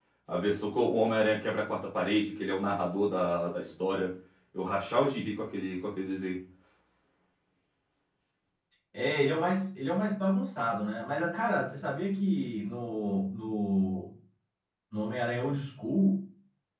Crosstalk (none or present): none